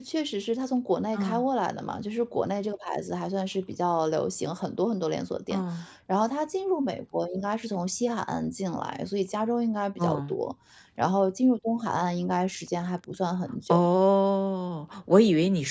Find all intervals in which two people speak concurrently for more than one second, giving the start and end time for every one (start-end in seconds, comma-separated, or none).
none